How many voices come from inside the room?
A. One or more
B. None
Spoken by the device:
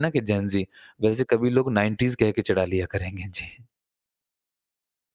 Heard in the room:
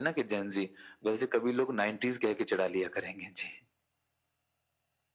B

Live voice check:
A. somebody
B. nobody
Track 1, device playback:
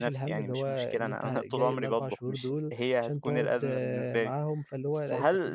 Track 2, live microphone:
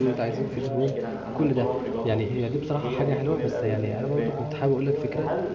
A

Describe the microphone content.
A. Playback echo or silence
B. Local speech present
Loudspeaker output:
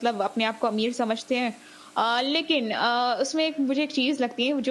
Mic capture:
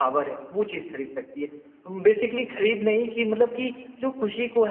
B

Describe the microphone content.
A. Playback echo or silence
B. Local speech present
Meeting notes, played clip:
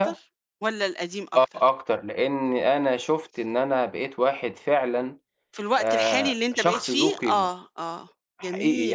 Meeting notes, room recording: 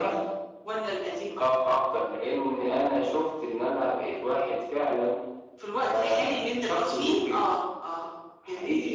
A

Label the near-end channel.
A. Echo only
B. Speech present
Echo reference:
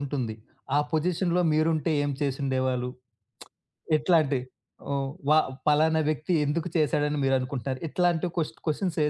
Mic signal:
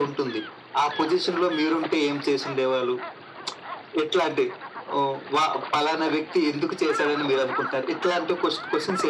A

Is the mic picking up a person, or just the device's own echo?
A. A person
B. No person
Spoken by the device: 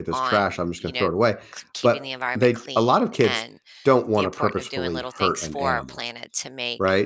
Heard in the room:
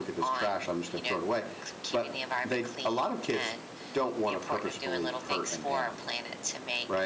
B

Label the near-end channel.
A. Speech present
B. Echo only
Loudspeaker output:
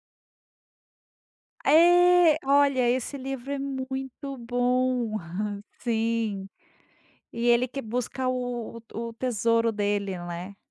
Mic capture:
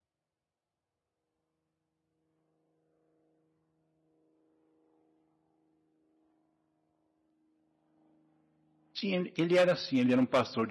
A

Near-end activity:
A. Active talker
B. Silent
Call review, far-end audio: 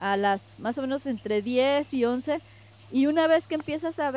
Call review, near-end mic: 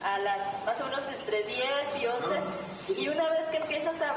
A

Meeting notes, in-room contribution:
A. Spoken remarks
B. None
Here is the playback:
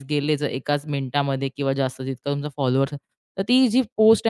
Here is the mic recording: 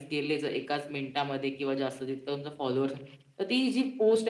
B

